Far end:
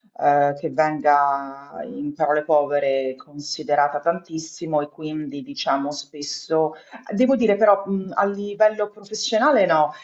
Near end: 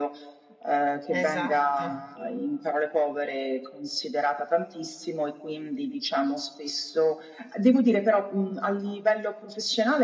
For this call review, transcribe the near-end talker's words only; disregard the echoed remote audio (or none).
esatto.